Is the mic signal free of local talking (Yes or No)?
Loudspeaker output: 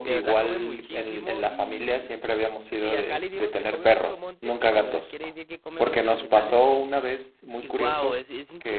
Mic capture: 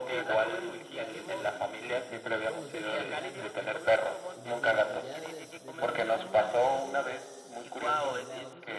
No